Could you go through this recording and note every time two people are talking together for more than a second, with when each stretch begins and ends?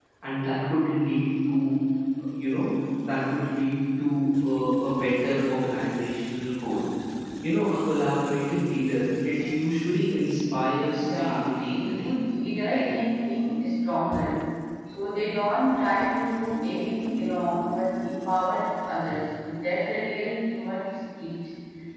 10.9-12.1

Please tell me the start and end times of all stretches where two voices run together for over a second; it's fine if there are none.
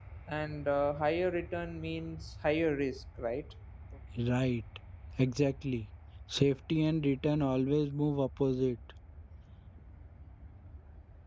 none

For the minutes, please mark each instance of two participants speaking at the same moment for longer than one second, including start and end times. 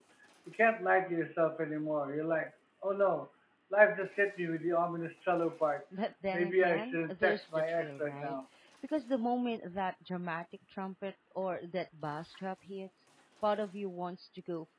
6.3-8.3

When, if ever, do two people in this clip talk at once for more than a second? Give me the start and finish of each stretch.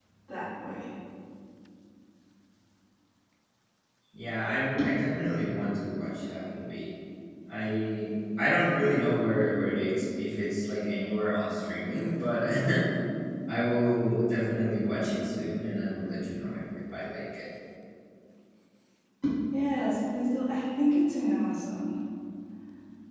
none

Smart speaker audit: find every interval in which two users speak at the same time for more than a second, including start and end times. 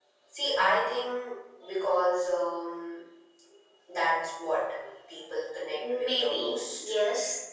5.7-6.9

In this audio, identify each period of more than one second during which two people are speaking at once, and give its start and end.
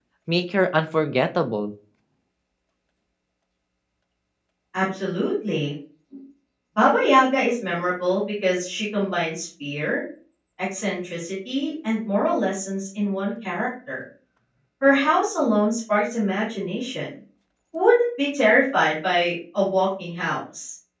none

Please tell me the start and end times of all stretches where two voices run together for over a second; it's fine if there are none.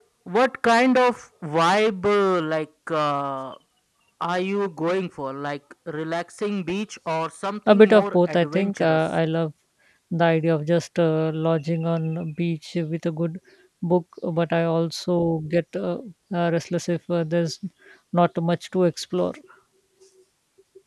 7.7-9.0

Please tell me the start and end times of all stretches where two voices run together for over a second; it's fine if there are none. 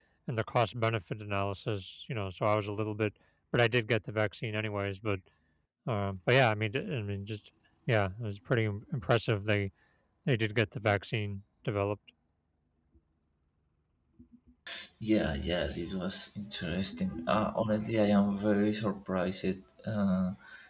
none

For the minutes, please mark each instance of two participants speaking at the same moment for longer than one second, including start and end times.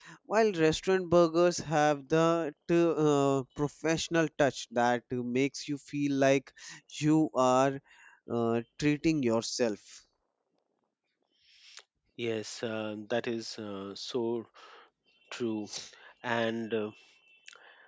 none

